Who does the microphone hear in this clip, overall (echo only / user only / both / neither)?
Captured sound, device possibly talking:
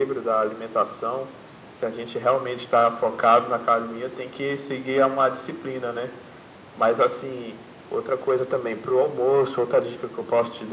echo only